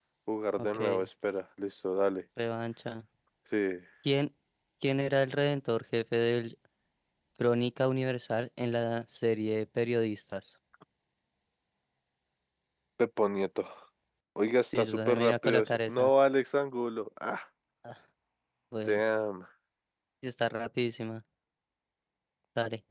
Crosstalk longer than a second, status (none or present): present